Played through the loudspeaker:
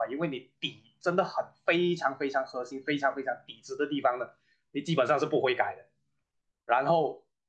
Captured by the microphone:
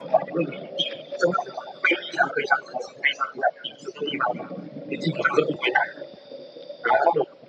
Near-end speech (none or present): none